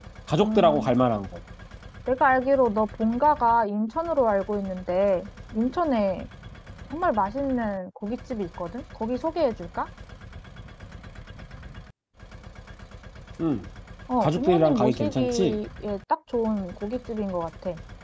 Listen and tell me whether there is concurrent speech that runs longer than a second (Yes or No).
Yes